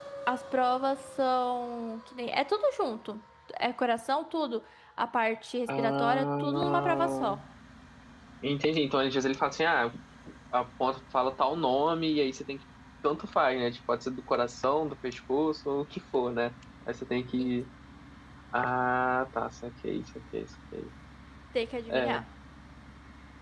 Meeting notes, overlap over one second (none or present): present